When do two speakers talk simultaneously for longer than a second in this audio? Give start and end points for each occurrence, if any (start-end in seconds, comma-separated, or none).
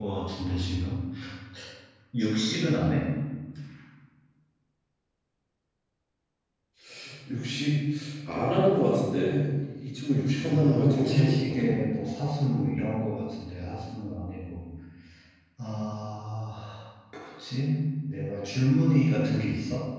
10.4-11.7